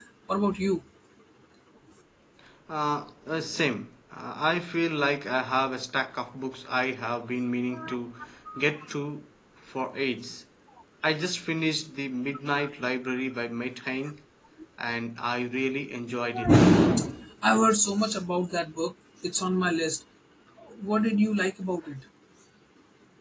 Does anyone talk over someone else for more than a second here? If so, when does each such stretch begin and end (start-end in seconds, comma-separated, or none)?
none